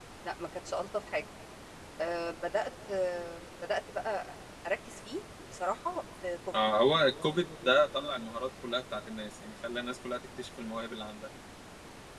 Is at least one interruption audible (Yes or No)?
No